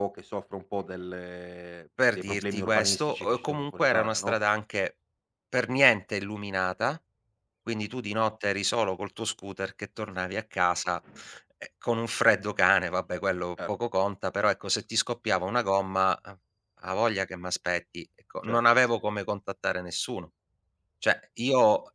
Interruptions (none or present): present